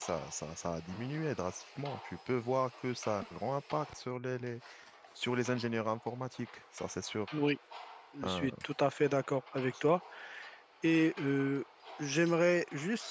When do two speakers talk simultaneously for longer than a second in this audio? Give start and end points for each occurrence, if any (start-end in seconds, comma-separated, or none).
none